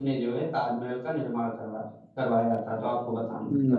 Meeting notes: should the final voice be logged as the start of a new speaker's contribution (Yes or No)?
Yes